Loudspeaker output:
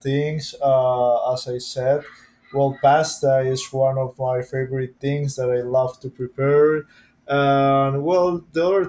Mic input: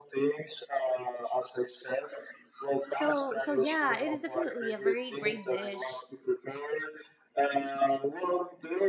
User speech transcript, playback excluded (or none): So so yeah, it is definitely a very great dish.